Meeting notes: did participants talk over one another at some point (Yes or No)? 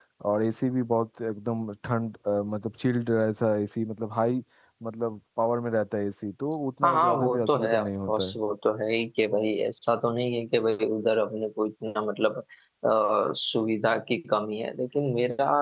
Yes